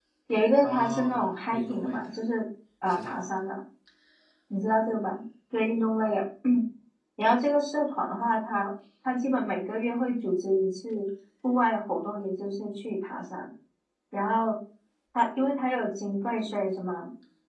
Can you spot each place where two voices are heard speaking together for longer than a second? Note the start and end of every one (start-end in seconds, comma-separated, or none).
0.6-2.1